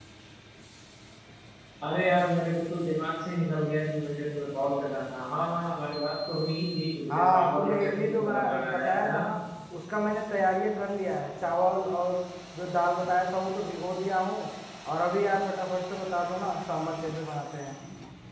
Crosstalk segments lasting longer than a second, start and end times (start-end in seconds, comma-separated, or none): 7.1-9.2